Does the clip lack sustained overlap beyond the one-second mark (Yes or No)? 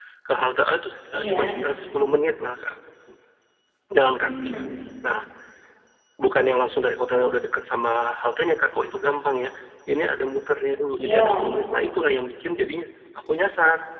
Yes